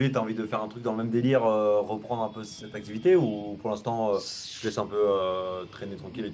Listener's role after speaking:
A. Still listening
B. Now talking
B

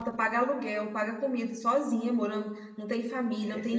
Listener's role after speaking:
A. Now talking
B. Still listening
B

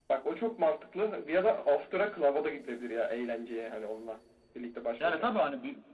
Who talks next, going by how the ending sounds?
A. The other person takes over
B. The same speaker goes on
A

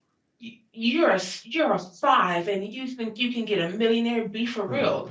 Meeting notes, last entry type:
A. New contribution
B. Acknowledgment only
B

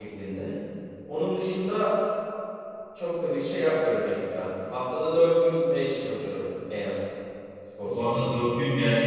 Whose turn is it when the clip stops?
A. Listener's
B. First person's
A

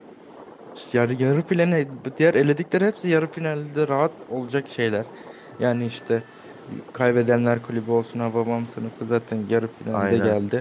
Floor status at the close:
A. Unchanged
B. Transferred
A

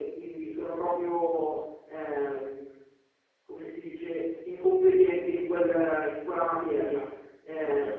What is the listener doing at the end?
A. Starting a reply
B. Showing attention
A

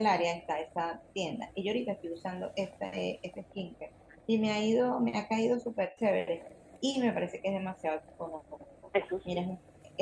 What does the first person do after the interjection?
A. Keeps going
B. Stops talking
A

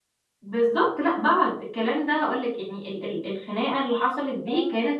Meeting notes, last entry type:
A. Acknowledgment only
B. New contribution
A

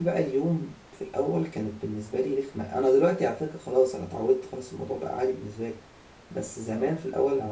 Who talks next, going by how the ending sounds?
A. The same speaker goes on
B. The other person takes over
A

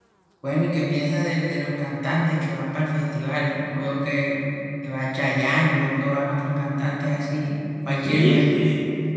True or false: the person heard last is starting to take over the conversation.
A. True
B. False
A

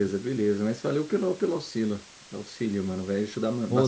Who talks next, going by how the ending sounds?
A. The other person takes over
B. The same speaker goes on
A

